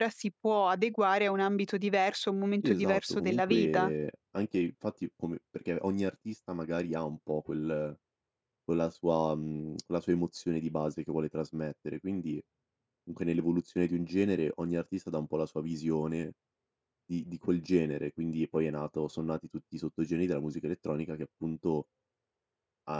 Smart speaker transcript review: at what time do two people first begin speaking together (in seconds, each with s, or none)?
2.6 s